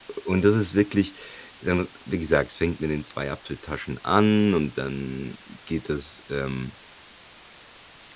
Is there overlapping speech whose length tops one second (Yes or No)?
No